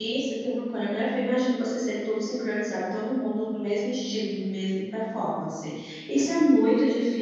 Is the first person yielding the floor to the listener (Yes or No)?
No